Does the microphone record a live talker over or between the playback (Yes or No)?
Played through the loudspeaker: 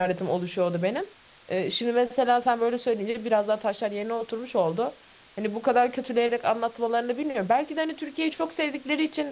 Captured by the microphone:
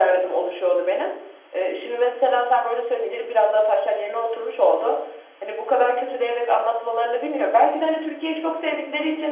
No